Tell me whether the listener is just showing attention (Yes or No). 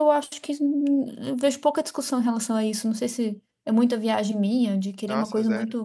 Yes